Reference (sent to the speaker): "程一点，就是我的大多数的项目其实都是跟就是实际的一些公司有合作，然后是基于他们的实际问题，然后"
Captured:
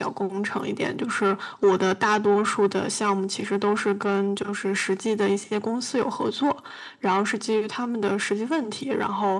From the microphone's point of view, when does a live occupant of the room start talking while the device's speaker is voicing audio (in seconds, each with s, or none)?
none